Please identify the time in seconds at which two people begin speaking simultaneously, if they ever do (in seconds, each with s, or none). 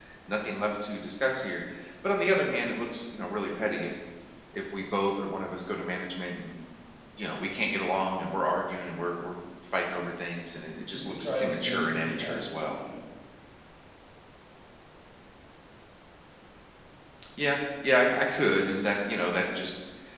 10.9 s